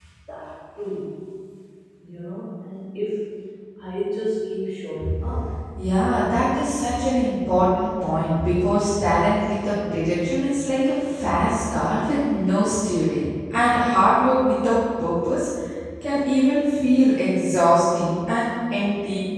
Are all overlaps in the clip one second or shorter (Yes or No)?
Yes